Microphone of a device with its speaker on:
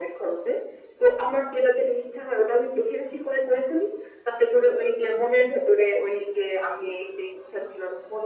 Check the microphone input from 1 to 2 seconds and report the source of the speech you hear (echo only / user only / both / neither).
echo only